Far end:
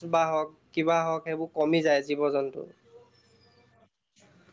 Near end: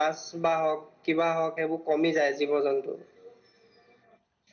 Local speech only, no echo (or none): none